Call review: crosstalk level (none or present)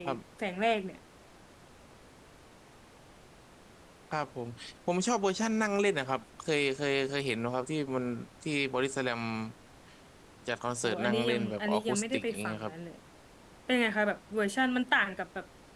present